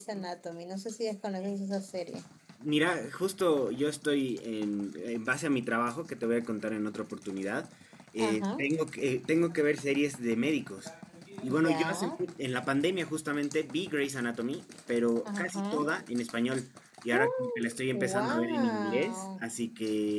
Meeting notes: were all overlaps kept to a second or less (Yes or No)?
No